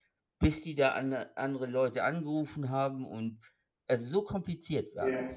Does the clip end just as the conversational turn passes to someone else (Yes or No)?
Yes